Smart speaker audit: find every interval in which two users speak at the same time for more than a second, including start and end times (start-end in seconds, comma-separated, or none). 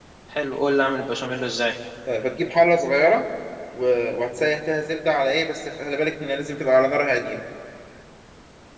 none